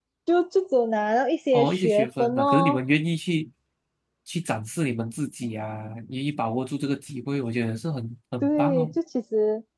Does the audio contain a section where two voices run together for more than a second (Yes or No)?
Yes